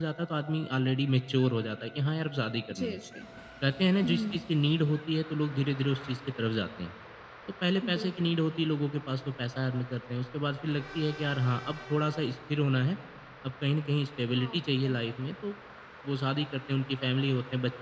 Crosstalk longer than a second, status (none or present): none